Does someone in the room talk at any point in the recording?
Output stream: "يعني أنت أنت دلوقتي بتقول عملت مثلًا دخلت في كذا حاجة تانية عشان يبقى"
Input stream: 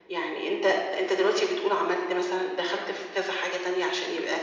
No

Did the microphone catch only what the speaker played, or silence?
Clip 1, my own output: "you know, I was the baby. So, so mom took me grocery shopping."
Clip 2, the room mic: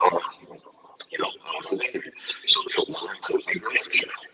Yes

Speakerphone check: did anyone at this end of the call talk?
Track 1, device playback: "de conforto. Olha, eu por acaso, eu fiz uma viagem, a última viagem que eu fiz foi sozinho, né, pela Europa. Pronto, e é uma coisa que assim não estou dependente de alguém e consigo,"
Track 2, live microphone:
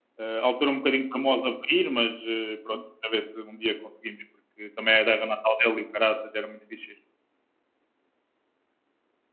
Yes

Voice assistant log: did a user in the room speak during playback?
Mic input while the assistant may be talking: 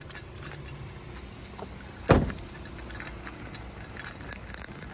No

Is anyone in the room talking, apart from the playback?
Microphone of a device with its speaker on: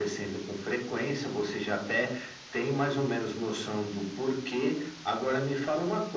No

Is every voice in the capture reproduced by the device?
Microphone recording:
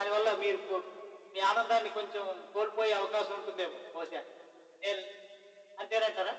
Yes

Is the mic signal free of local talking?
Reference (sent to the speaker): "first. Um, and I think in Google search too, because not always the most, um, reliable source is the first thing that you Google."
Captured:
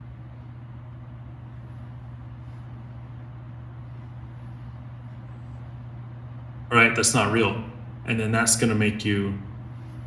No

